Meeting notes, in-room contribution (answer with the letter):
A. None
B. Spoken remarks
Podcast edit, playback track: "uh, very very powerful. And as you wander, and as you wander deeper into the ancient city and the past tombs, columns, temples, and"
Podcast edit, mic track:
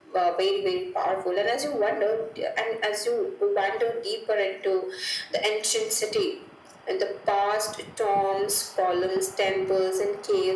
A